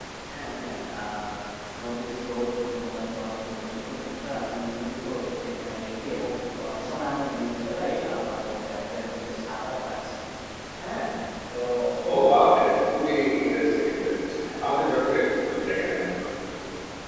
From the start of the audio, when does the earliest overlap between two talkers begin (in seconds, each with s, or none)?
none